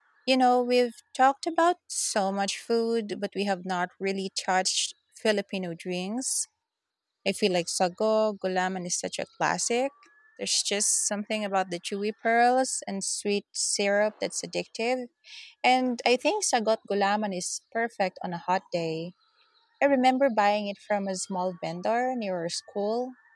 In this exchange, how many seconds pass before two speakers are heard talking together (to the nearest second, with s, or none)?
none